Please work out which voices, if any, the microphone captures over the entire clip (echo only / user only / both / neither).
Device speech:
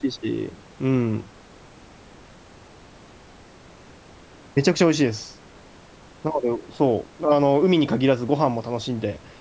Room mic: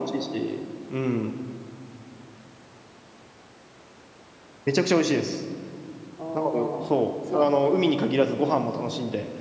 both